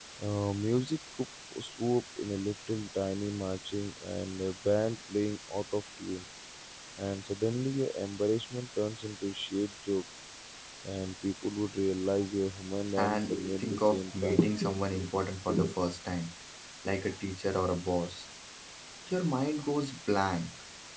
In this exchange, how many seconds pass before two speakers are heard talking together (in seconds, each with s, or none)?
12.9 s